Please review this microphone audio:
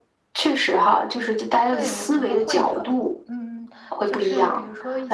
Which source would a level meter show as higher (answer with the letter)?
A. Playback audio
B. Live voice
A